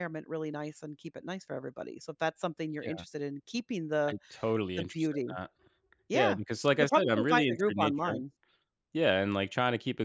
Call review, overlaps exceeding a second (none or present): present